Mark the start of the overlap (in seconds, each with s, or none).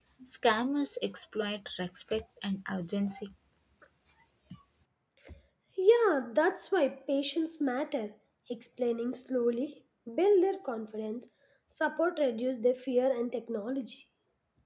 none